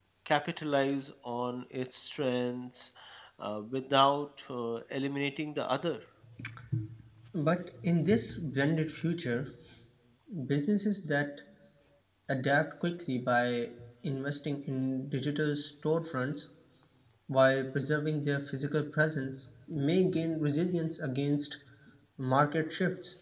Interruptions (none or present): none